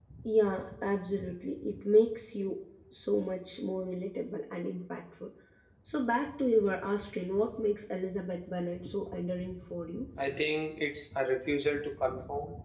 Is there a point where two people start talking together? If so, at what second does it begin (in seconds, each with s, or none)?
none